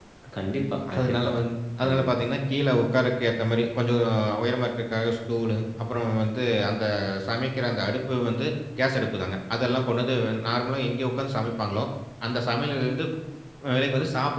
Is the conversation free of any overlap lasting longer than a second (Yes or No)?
Yes